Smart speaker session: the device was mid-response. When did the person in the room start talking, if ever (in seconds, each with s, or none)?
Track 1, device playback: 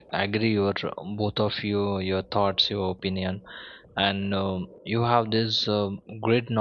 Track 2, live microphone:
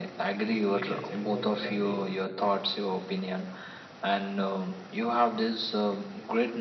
0.4 s